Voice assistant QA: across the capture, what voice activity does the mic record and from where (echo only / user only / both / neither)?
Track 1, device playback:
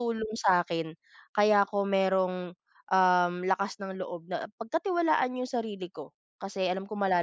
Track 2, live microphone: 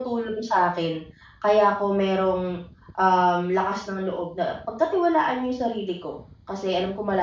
echo only